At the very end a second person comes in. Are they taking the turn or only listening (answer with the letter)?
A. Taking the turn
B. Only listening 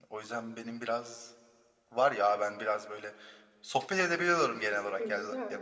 B